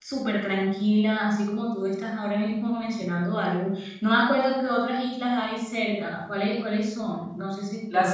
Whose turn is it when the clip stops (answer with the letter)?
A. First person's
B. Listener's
B